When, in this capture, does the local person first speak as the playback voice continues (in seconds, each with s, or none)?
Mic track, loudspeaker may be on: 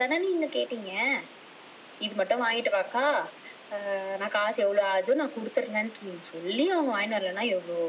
none